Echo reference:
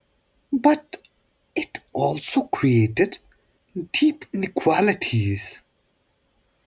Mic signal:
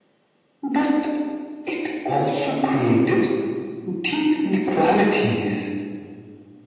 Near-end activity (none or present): none